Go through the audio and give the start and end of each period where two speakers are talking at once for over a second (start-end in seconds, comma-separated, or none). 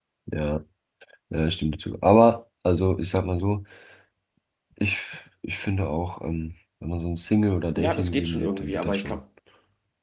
7.8-9.2